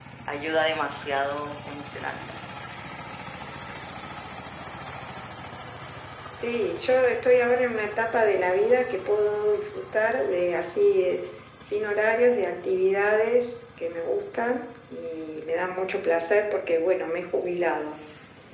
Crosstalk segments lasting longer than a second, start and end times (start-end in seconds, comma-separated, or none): none